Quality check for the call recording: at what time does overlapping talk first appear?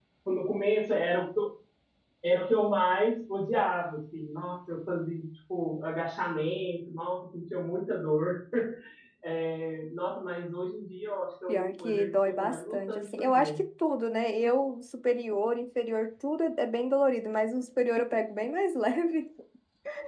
11 s

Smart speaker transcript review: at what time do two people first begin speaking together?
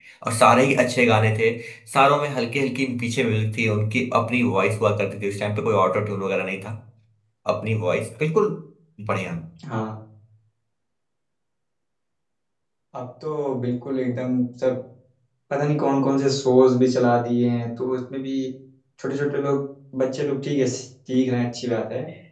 none

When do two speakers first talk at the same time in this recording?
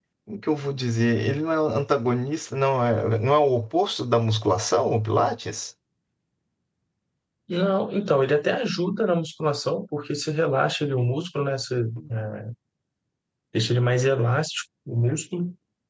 none

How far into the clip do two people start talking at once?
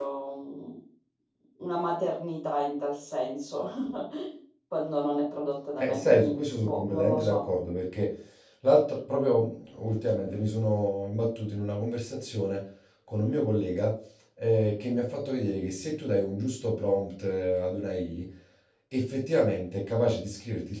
6 s

